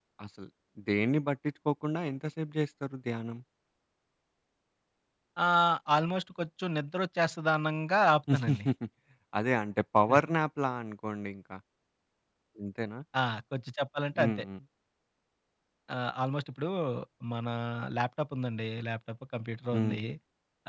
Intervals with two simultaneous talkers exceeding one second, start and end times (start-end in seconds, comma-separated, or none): none